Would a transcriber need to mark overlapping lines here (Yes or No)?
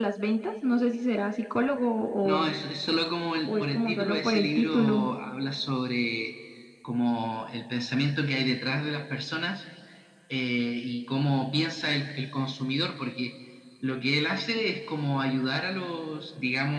Yes